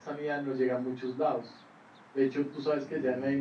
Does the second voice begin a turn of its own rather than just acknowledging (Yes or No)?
No